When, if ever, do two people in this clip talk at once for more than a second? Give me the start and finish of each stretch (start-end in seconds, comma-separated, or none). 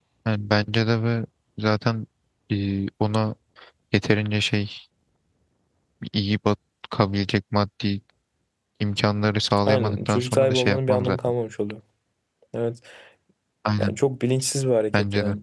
9.7-11.2